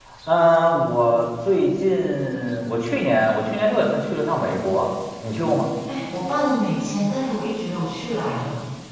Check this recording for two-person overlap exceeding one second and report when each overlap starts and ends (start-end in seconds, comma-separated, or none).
none